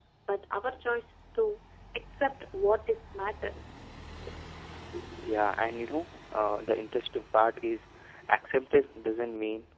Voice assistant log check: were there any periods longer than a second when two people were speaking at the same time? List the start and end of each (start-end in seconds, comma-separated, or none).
none